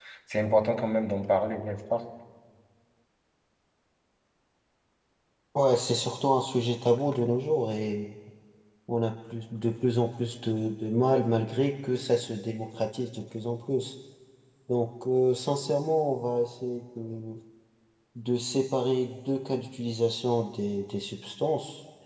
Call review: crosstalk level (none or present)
none